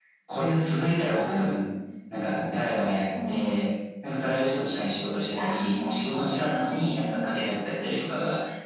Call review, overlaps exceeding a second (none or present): present